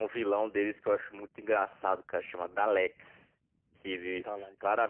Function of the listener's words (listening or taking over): listening